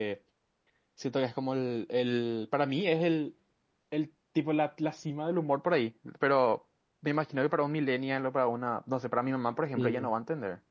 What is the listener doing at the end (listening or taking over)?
taking over